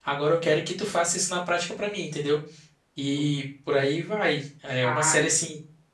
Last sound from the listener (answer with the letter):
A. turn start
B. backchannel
B